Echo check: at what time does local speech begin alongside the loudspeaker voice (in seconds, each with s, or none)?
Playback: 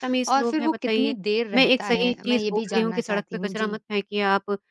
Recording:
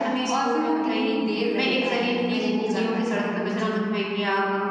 none